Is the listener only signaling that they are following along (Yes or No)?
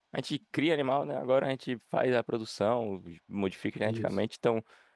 Yes